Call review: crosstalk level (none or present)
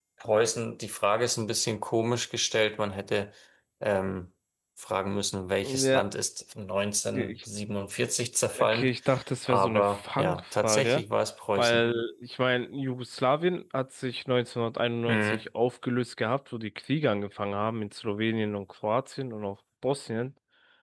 present